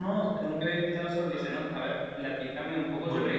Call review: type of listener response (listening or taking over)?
listening